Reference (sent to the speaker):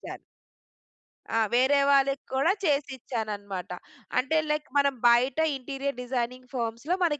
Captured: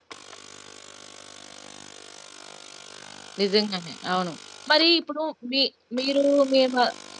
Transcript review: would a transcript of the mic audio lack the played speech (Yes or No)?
Yes